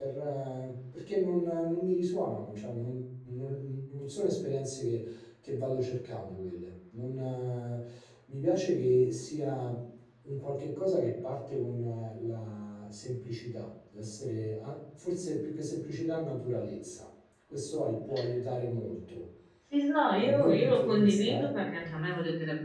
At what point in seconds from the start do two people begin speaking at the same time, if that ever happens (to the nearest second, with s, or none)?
20 s